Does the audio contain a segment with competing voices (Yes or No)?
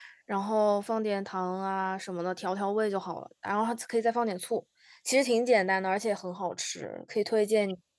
No